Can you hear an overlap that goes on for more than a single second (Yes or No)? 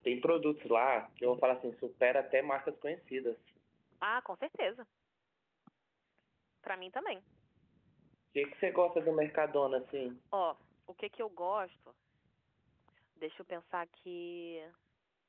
No